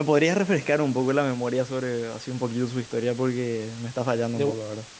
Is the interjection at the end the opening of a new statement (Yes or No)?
Yes